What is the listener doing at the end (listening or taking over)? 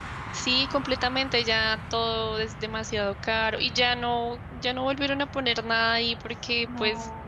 listening